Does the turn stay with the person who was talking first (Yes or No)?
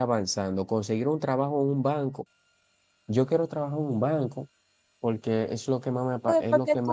No